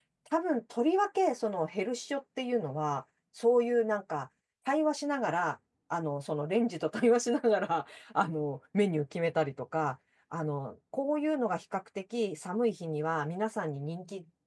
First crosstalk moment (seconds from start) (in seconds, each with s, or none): none